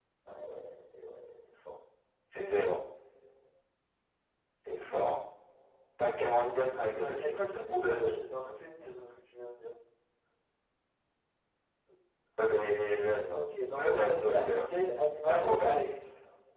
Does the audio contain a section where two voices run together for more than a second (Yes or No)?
Yes